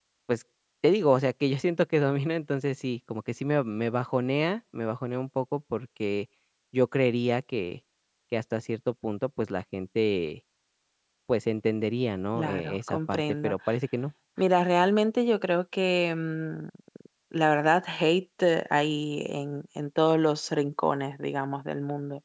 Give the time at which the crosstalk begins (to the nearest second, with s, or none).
12 s